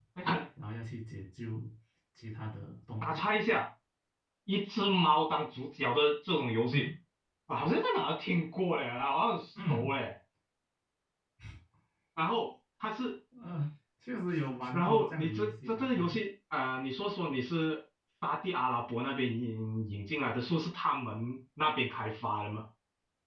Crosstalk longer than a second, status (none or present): present